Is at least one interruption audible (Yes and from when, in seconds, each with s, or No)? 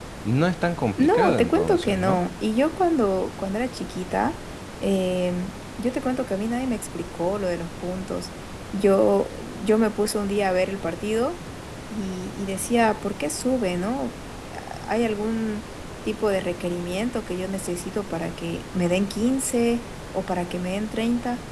Yes, from 1.0 s